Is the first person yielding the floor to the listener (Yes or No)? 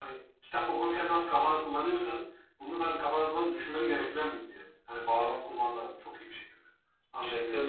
Yes